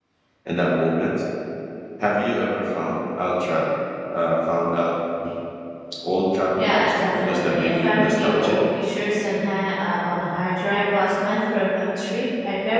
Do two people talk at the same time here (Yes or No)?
Yes